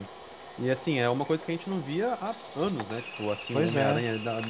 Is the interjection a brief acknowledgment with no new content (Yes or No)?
Yes